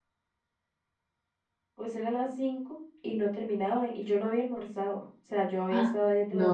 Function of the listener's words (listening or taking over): listening